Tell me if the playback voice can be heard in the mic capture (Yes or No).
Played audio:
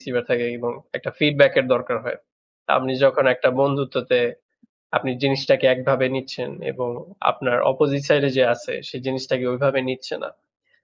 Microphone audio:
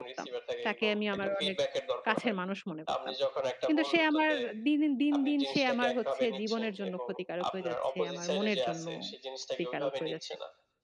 Yes